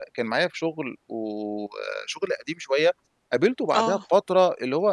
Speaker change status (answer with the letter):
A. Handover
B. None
B